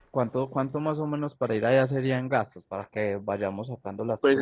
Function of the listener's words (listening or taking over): taking over